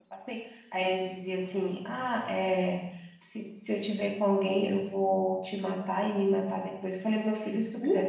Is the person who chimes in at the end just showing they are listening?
Yes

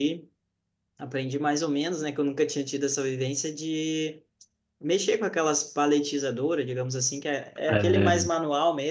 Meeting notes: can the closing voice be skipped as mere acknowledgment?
Yes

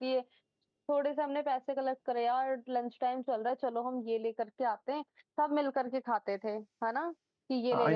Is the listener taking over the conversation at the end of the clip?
Yes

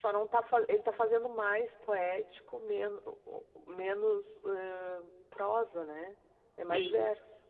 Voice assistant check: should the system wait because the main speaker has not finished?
No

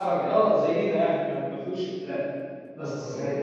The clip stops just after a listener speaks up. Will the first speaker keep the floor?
Yes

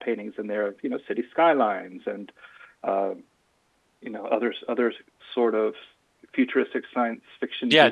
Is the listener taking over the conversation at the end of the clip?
Yes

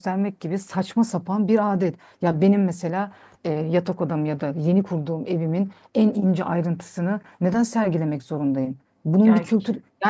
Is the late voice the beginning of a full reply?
No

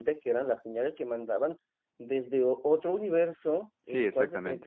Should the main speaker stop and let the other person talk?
No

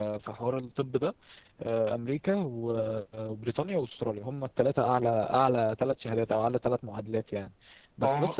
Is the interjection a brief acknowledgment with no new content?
Yes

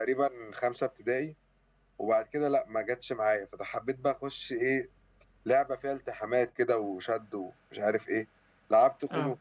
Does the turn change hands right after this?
No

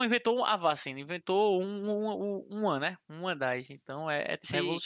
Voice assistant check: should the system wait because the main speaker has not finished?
No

